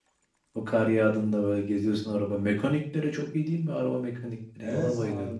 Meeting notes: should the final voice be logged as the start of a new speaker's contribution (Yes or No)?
Yes